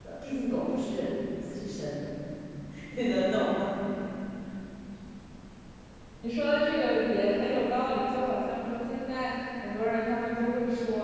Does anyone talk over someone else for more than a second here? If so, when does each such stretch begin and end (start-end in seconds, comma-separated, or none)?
none